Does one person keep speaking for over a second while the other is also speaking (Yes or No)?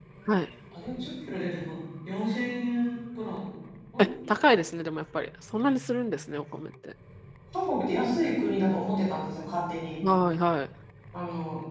No